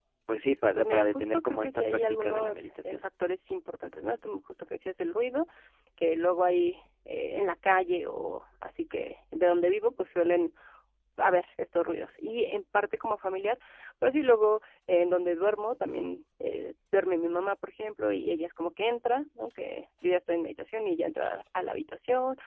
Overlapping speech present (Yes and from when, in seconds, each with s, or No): Yes, from 0.8 s